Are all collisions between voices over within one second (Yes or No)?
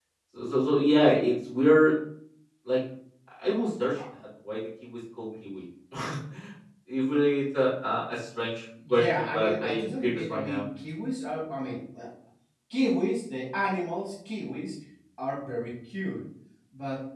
No